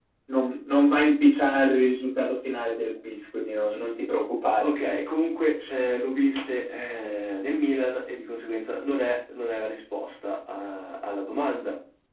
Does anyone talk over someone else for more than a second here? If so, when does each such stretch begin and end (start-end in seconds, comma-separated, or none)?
none